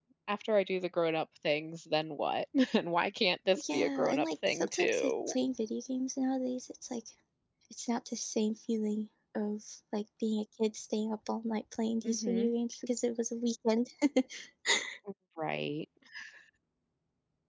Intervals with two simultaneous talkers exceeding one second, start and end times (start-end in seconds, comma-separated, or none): 3.6-5.3